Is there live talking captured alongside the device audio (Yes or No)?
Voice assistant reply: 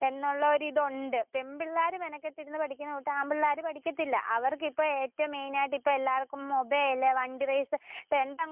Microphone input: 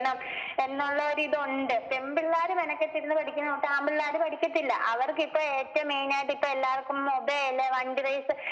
No